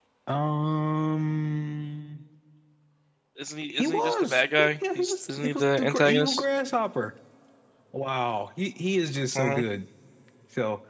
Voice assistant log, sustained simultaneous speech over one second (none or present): present